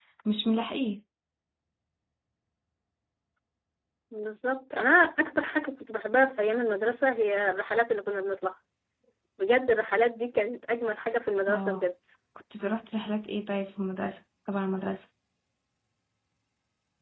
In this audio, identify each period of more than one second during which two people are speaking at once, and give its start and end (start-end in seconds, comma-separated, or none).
none